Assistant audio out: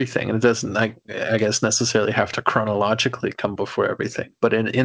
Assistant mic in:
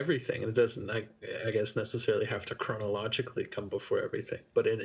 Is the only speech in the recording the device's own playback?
Yes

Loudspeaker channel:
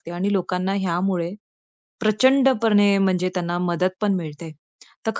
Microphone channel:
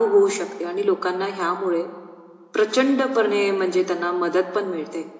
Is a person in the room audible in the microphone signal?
No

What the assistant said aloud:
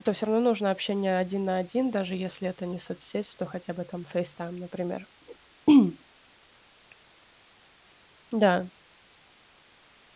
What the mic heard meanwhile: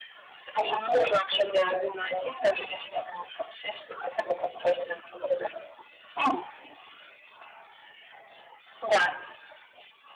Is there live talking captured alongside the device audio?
No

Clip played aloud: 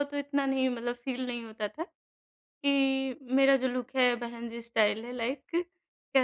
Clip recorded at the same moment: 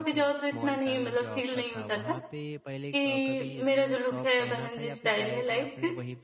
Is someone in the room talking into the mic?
Yes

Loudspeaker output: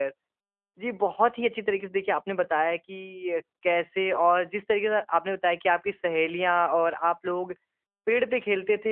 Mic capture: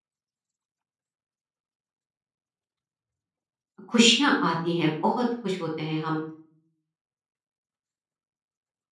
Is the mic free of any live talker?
No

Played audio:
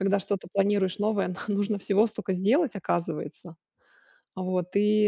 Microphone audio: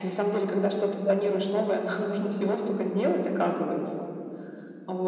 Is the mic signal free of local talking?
Yes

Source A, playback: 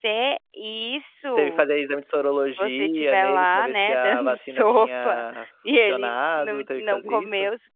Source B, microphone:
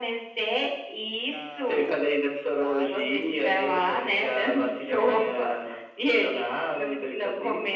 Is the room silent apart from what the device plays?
No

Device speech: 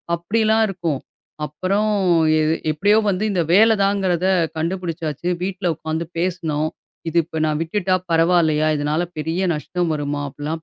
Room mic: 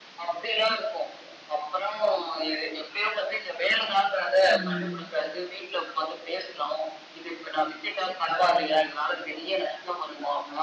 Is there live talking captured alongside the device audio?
Yes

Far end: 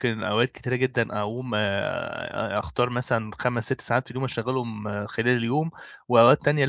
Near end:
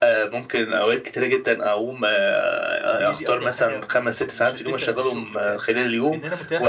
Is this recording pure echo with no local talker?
No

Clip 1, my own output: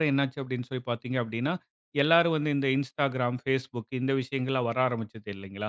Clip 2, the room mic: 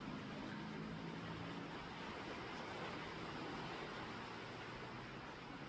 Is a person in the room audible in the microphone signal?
No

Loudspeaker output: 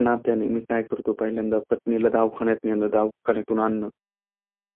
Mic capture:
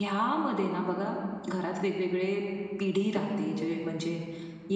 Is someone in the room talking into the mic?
Yes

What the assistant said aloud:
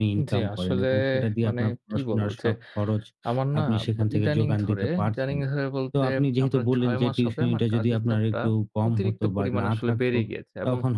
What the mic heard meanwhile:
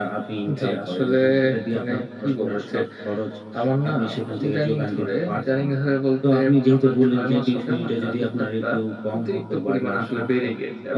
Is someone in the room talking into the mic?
No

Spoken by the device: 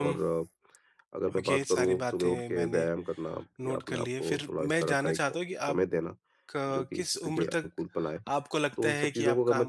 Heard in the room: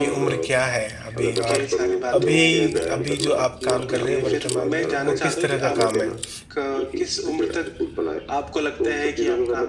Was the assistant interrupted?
Yes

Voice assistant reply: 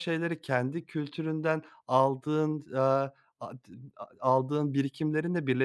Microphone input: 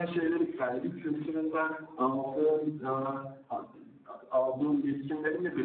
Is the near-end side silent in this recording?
Yes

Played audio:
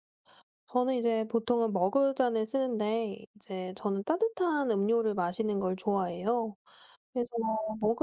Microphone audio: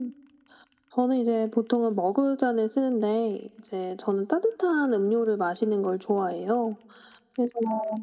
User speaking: No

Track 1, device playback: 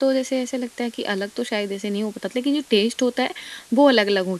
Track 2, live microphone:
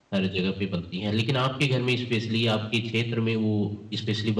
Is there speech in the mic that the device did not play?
Yes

